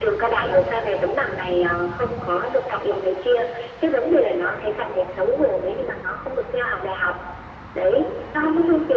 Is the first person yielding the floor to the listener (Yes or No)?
No